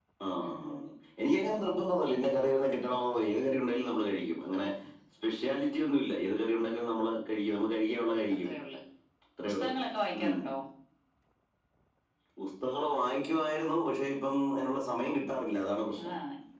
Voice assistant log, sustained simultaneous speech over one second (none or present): none